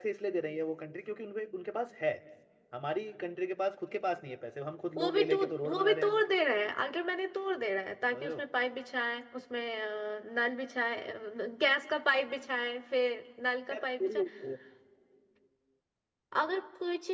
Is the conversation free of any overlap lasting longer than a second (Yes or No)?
No